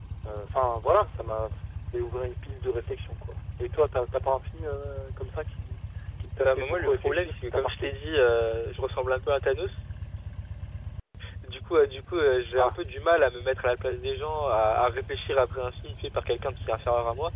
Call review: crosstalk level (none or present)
present